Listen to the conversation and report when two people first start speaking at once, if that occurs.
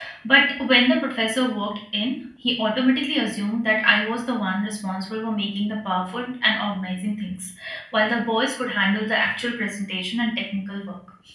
none

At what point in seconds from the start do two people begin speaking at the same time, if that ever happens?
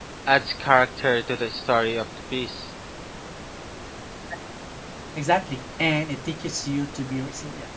none

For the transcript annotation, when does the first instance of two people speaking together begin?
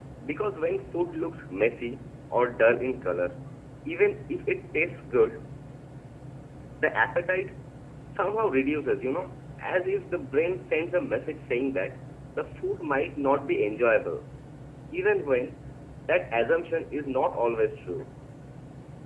none

